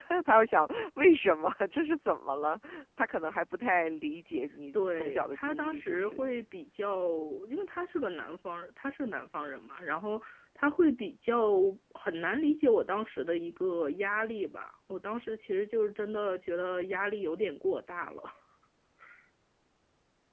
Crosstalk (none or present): present